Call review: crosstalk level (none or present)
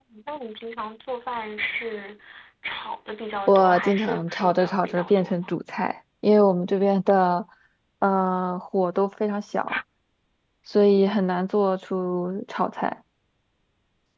present